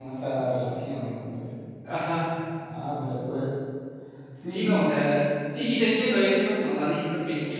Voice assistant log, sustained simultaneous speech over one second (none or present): none